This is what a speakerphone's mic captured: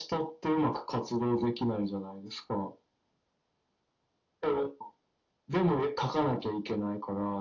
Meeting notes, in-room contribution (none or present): none